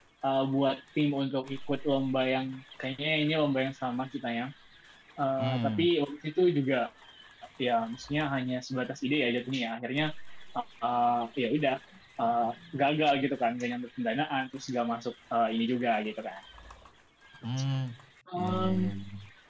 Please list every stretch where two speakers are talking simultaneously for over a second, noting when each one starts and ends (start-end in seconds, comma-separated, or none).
none